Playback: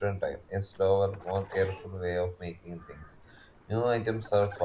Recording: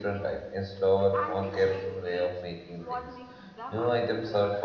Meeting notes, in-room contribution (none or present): present